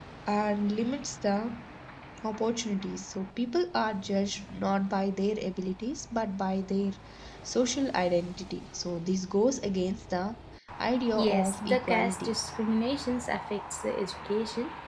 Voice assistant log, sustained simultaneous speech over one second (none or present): present